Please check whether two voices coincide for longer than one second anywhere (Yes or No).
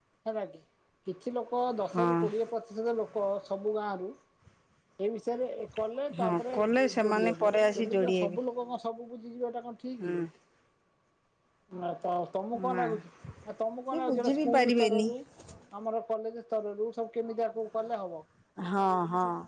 Yes